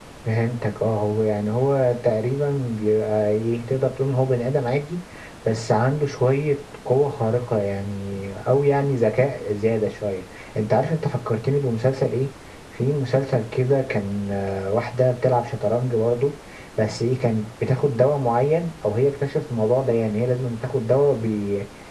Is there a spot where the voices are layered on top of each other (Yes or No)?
No